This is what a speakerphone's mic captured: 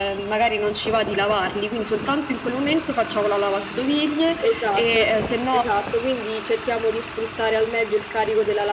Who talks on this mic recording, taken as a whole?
both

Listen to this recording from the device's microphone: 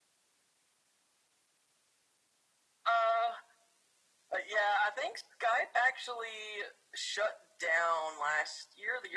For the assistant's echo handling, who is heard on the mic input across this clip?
echo only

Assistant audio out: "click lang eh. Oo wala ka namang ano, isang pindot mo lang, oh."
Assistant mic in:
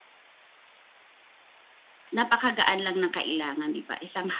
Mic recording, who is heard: user only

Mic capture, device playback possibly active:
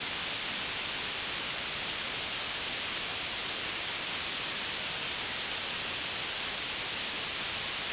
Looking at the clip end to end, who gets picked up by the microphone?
neither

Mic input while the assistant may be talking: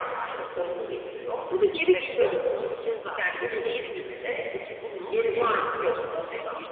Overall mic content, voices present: both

